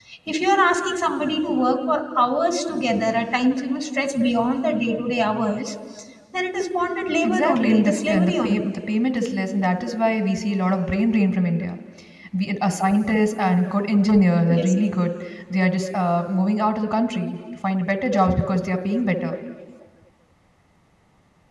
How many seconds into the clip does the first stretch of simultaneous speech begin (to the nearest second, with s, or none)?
7 s